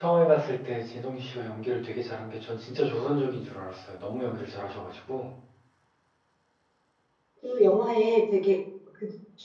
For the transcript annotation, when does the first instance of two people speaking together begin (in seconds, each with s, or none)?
none